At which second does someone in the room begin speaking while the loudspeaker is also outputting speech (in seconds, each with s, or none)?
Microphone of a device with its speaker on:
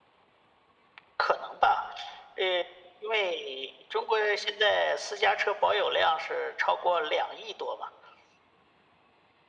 none